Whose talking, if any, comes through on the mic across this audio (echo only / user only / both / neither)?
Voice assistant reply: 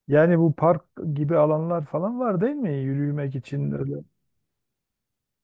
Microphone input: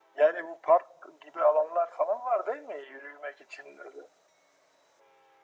echo only